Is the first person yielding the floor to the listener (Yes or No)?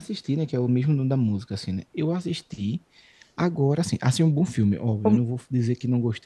No